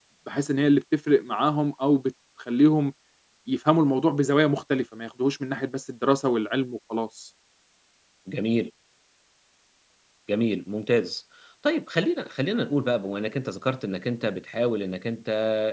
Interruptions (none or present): none